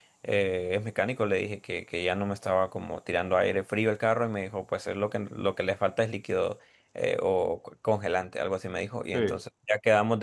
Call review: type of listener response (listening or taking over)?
listening